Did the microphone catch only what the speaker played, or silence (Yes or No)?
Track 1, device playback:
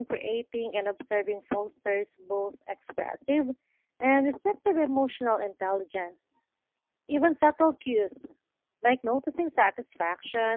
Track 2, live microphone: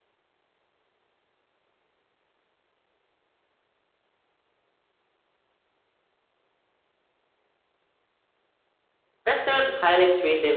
No